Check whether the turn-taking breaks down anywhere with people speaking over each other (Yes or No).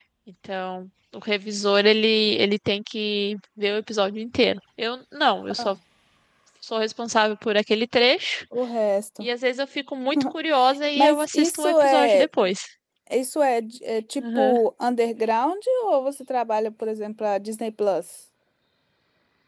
Yes